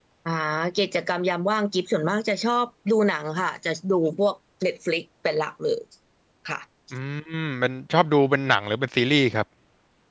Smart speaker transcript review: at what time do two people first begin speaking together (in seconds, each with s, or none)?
none